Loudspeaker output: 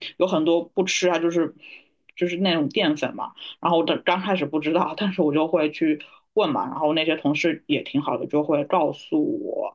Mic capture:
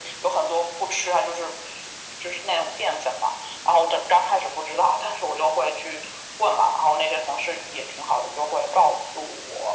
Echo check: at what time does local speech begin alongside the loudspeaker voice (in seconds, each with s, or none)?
none